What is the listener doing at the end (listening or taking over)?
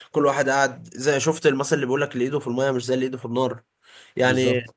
listening